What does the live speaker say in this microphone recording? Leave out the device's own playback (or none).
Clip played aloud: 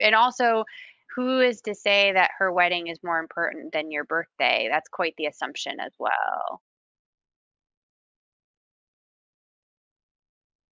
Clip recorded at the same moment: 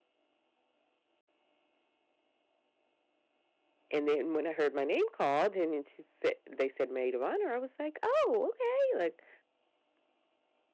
And then when I heard my name called and then she said they said maid of honor, I was like, "Oh, okay." Like